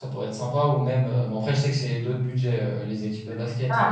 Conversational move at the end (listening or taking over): listening